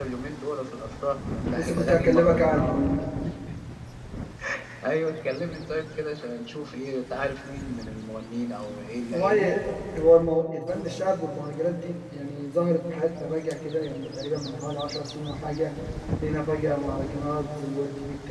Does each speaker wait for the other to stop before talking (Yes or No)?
No